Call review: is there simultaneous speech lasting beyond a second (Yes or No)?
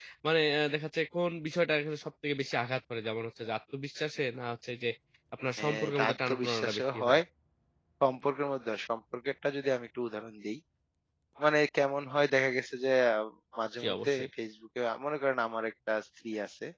Yes